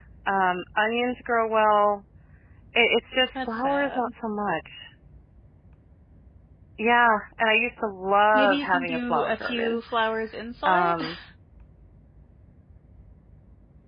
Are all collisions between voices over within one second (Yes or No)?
No